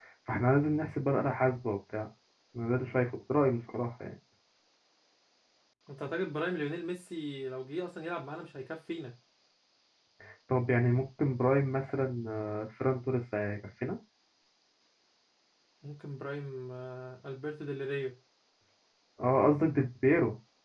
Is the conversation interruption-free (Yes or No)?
Yes